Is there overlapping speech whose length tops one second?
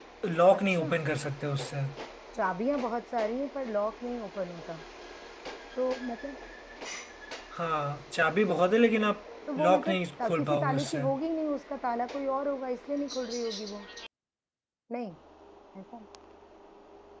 Yes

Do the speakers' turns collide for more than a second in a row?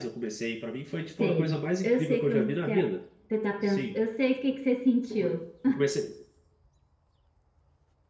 Yes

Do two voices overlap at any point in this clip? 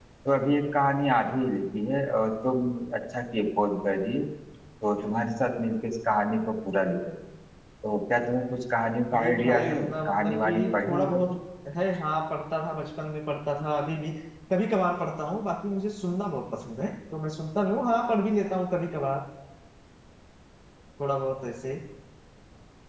Yes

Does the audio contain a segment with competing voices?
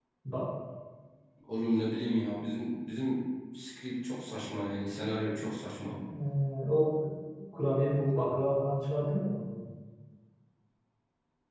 No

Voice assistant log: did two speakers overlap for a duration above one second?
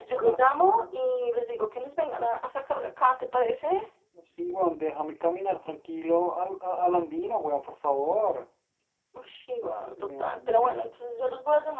Yes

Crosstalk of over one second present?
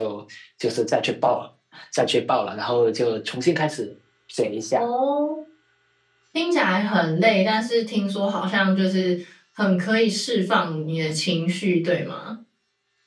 No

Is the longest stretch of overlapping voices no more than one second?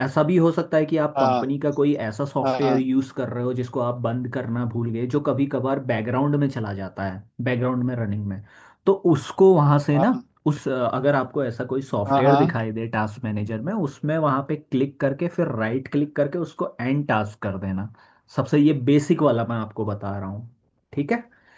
Yes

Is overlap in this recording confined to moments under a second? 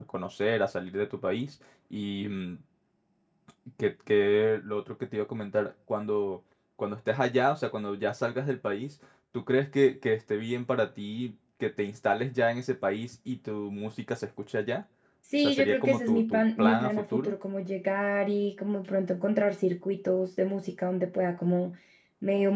No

